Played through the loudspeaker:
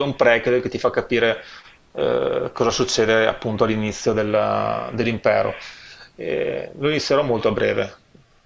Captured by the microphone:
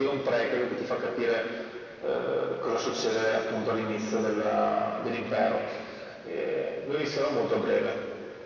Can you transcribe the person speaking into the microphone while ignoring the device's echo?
none

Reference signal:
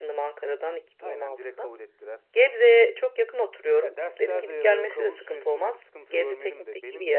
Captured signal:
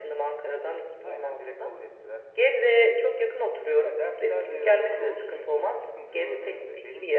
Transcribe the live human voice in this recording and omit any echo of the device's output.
none

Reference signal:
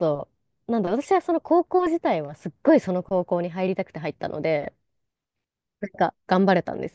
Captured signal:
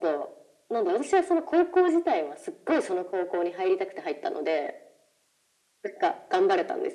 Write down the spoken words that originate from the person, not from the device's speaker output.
none

